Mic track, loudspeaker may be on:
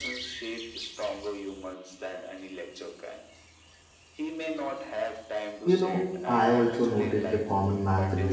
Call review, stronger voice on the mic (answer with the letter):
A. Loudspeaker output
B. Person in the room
B